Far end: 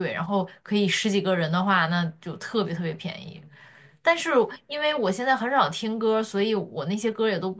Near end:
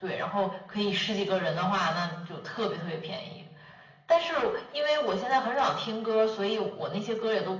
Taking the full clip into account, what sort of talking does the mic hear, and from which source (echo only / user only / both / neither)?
echo only